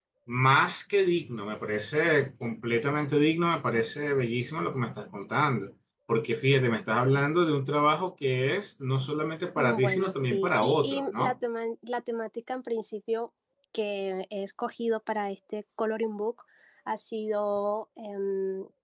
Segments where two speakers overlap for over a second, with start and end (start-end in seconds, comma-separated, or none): 9.6-11.3